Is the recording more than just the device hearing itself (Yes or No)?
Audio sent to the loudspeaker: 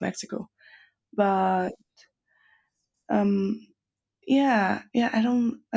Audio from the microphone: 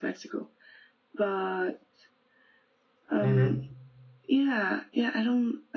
Yes